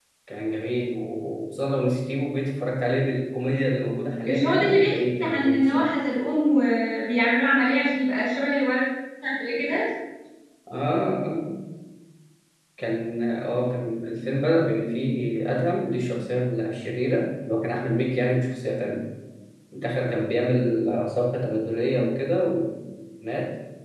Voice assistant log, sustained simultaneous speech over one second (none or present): present